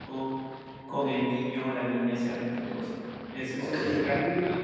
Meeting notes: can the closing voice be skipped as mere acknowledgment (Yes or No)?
Yes